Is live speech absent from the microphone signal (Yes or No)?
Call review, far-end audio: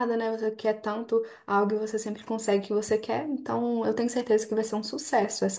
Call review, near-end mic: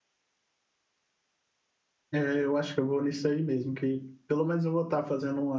No